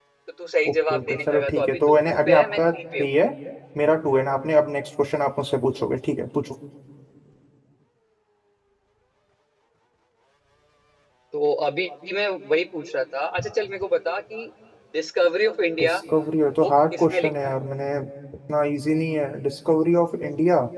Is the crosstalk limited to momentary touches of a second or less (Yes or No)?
No